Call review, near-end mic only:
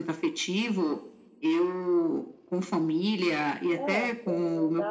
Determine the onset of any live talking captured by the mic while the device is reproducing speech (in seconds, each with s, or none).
3.7 s